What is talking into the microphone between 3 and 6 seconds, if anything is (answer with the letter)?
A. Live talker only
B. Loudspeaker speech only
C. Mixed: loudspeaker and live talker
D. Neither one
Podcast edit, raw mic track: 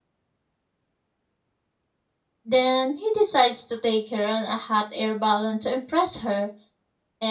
A